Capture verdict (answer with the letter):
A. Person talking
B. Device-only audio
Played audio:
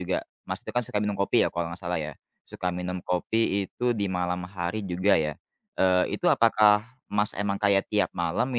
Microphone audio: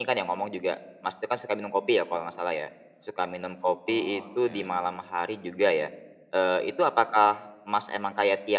A